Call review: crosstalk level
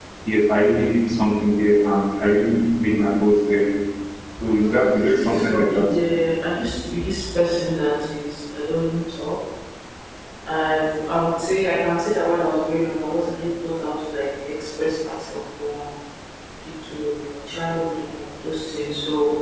present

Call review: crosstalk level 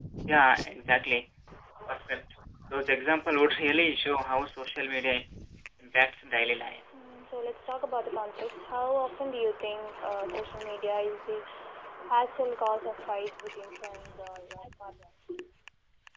none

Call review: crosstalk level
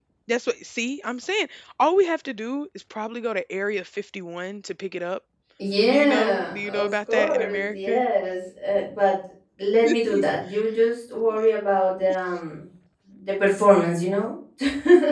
present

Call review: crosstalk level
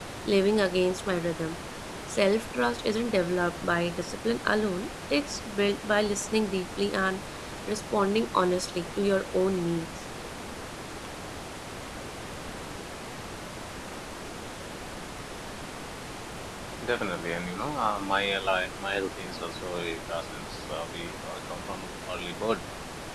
none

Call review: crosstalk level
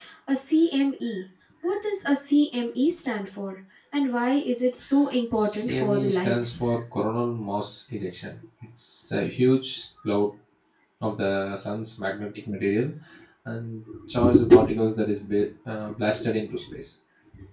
present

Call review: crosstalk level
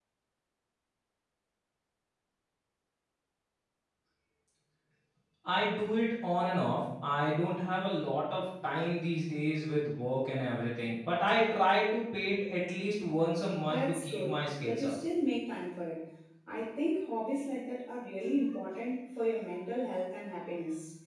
present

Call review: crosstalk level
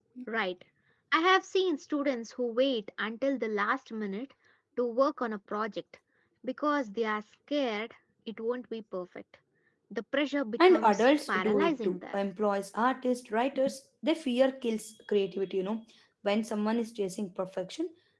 present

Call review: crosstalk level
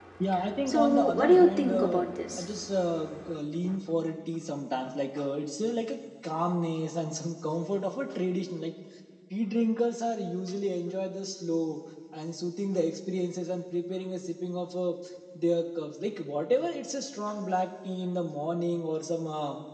present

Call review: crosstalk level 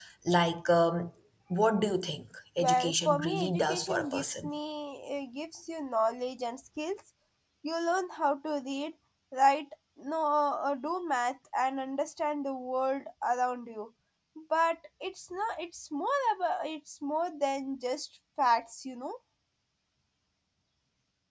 present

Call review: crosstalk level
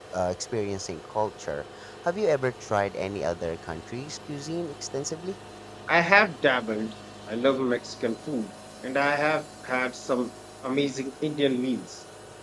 none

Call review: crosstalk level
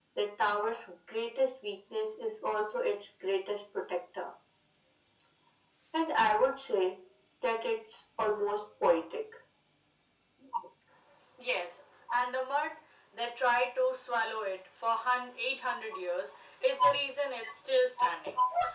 none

